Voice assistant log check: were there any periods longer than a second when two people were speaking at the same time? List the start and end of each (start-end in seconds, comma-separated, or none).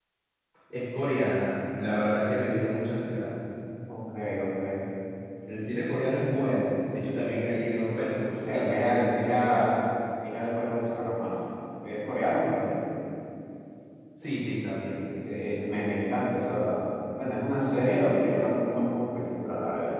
8.4-9.8